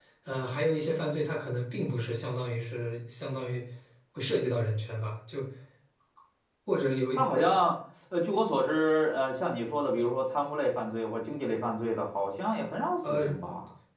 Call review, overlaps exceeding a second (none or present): none